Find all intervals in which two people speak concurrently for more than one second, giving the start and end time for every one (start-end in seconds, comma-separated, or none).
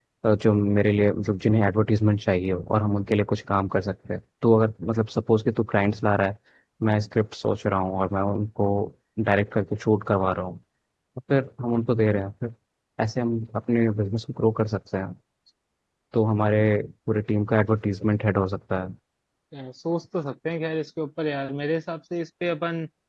none